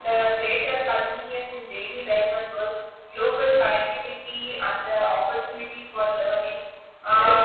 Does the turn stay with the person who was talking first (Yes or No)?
Yes